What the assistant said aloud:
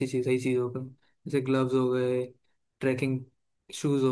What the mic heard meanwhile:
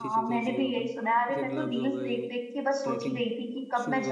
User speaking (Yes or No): Yes